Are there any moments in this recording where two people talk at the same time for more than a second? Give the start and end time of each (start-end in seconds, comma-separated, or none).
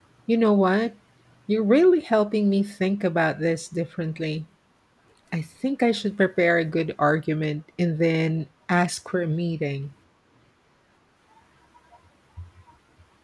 none